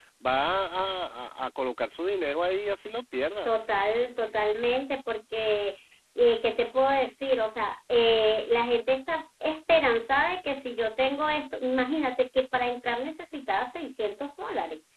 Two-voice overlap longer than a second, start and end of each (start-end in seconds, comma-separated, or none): none